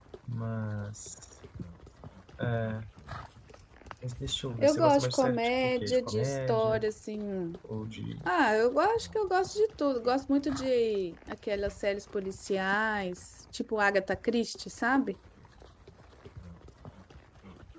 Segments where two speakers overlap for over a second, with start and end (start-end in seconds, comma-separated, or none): 4.6-6.8